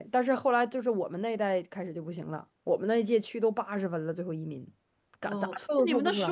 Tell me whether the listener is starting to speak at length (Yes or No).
Yes